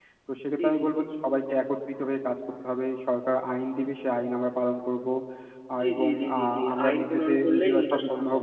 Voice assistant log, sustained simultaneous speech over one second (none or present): present